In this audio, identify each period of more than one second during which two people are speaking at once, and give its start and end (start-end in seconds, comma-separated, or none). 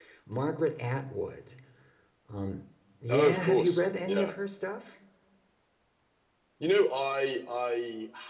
3.1-4.3